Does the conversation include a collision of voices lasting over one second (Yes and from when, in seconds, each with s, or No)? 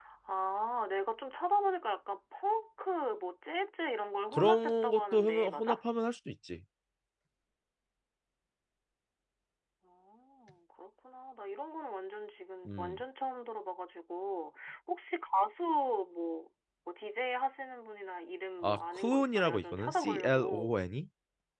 Yes, from 4.3 s